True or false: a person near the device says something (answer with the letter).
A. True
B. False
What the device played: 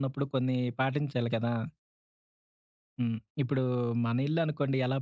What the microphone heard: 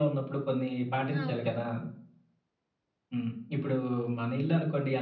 A